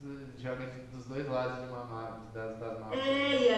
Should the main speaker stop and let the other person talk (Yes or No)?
Yes